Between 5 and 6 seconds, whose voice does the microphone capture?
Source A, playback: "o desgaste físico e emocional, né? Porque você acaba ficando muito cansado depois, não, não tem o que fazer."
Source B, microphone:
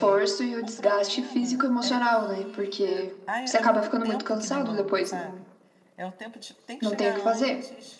both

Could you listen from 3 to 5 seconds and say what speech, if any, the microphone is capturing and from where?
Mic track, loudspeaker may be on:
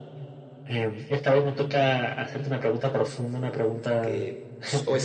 both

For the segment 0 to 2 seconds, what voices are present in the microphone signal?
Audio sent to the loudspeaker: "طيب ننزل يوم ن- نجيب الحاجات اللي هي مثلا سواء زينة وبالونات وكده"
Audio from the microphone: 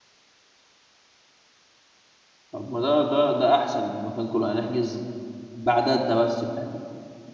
neither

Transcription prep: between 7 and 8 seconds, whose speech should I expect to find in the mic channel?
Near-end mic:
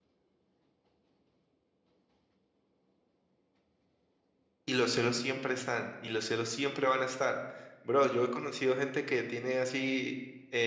user only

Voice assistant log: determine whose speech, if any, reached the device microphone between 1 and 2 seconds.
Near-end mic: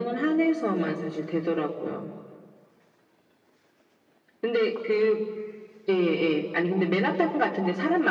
echo only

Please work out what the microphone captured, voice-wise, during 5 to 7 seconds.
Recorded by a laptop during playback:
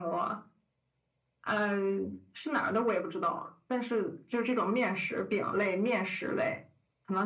echo only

